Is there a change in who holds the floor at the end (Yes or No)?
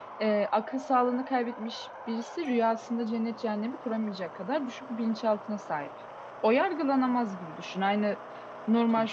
No